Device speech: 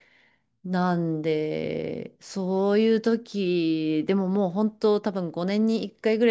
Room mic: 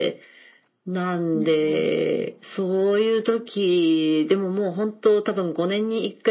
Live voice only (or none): うんうん。